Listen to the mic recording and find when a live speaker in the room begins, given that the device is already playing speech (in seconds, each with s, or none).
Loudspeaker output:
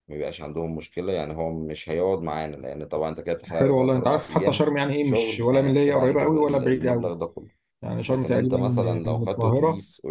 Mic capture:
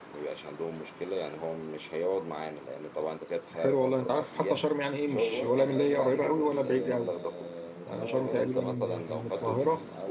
5.0 s